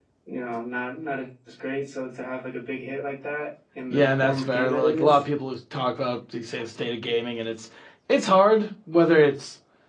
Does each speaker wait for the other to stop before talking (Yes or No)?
No